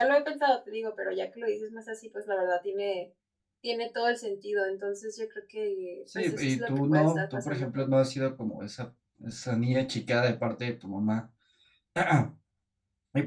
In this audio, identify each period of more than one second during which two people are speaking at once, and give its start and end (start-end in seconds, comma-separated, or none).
6.2-8.1